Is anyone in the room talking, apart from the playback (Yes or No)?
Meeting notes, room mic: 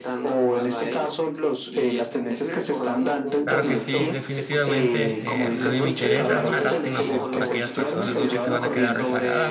Yes